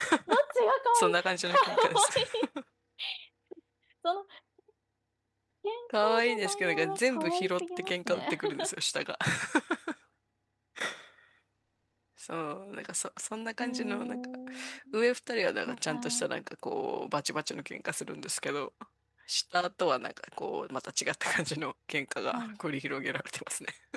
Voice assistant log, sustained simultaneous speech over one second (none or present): present